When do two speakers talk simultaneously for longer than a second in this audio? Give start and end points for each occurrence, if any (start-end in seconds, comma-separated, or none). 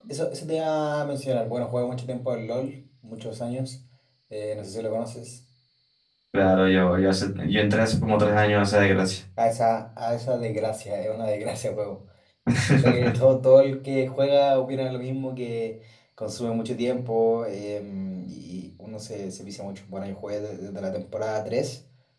none